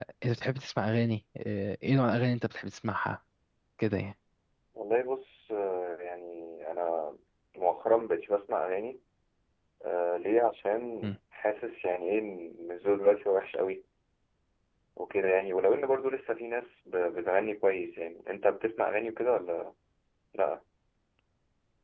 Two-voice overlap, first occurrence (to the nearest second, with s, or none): none